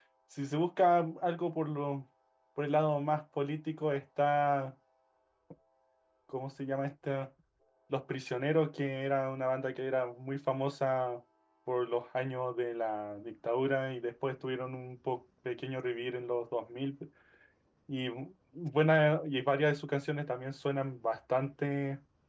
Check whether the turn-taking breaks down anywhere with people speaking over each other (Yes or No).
No